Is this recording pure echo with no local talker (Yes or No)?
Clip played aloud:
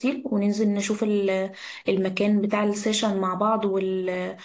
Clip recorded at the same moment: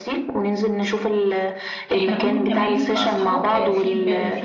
No